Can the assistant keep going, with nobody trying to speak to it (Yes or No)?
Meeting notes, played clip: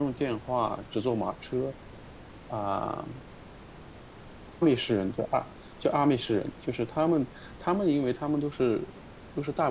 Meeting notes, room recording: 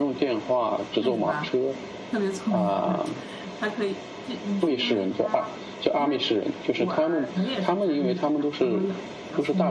No